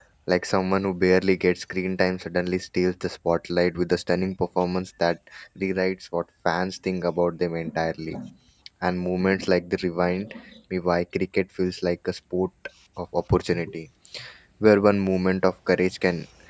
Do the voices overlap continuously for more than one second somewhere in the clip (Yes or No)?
No